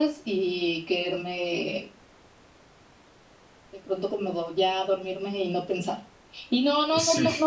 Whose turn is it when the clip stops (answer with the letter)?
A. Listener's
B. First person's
B